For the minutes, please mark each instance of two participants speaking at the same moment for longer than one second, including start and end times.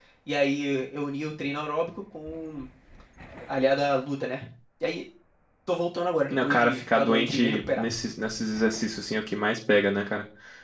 6.3-7.9

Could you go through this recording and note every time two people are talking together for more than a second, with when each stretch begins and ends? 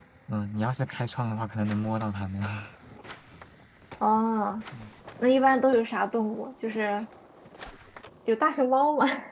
none

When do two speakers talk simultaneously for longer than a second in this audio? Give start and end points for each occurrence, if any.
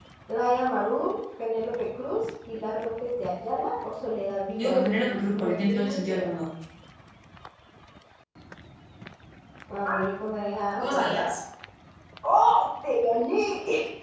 4.6-6.3

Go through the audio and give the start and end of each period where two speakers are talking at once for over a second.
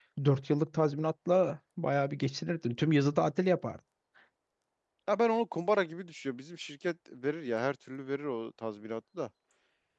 none

